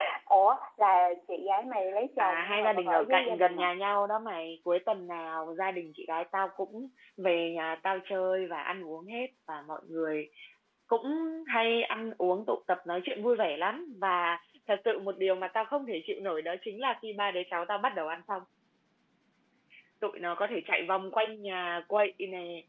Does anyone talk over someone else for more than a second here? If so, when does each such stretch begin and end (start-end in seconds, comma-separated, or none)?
2.2-3.7